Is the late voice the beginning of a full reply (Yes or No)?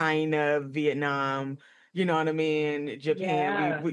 No